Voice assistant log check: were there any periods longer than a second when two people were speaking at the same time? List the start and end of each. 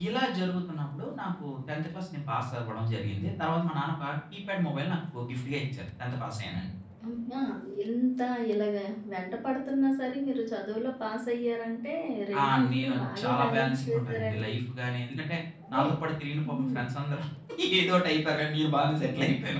12.4-14.5

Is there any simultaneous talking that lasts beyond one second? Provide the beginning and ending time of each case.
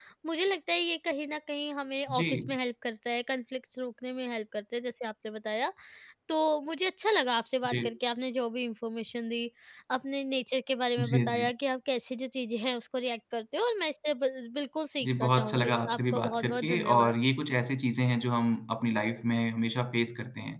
15.0-17.2

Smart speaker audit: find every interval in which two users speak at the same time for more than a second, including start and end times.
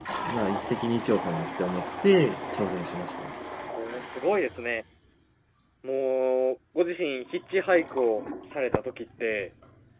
none

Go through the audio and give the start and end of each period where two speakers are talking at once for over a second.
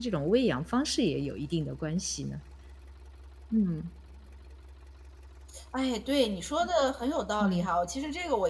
none

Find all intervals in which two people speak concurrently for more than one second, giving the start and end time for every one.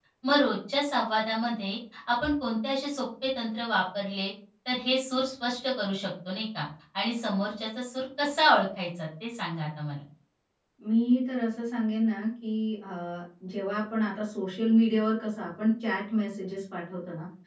none

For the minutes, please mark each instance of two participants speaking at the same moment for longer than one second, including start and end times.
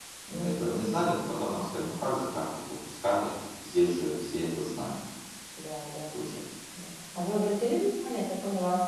none

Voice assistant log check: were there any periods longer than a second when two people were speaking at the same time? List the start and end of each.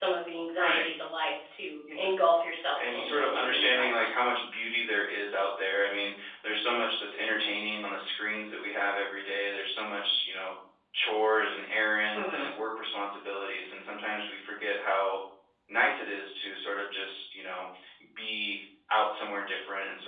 2.8-4.1

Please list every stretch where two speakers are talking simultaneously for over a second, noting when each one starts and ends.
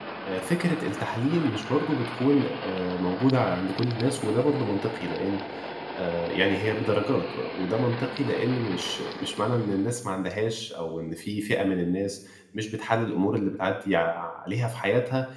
none

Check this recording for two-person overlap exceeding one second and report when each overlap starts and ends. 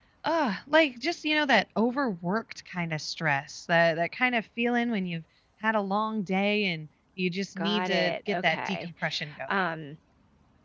7.6-8.9

